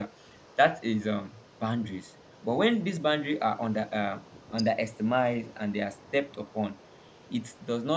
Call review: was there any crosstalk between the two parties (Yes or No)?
No